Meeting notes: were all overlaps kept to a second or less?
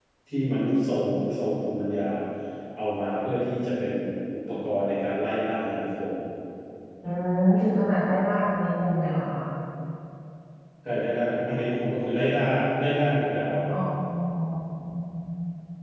Yes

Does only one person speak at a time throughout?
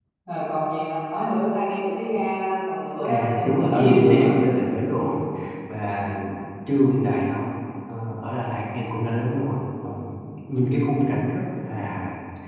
No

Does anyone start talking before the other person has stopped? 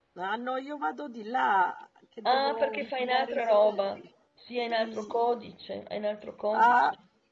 Yes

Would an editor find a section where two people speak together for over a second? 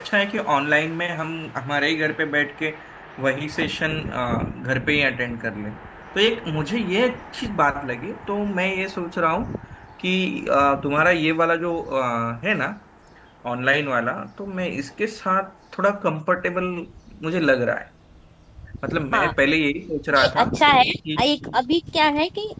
No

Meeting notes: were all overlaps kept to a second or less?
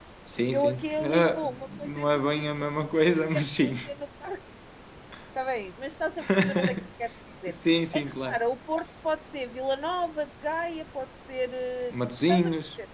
No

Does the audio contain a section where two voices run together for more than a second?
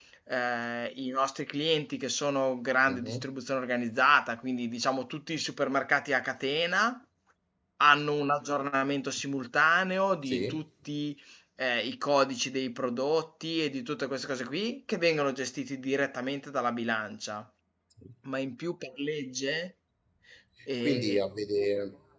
No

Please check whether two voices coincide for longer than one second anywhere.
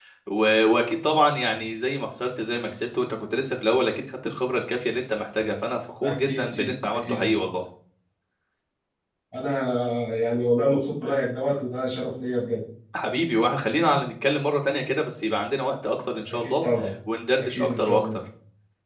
Yes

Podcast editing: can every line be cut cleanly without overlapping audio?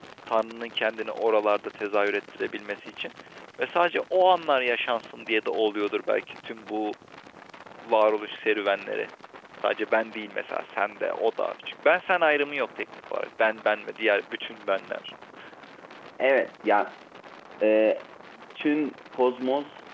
Yes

